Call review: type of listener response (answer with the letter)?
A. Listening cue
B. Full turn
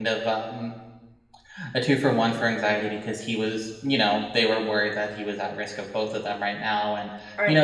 A